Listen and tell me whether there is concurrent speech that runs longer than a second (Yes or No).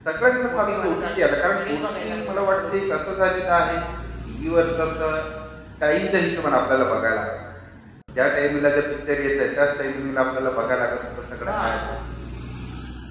Yes